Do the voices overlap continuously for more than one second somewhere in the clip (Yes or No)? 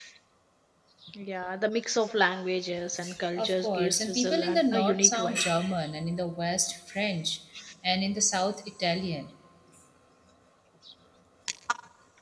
Yes